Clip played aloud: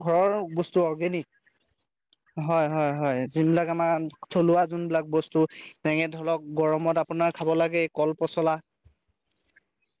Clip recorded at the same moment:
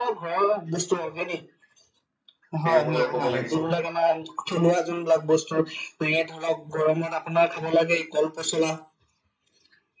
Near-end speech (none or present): present